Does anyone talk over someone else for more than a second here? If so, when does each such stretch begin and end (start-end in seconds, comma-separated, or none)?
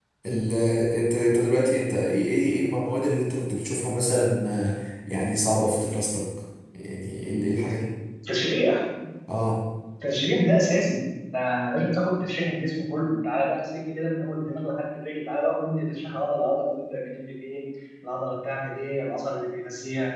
none